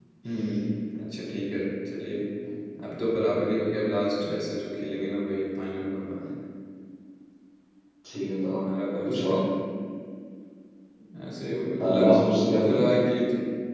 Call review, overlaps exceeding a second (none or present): none